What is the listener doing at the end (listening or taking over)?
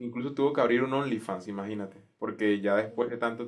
listening